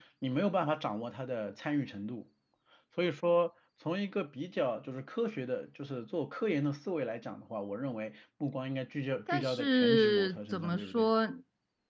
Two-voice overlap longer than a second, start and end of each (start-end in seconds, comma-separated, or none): 9.3-11.1